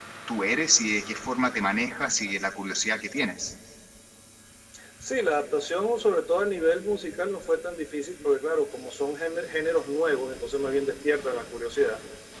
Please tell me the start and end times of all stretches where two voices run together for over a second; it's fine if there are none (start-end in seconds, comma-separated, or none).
none